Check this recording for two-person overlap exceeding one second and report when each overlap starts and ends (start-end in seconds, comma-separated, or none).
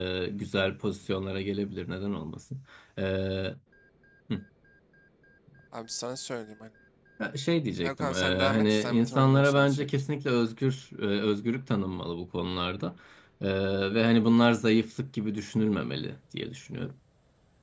7.8-9.9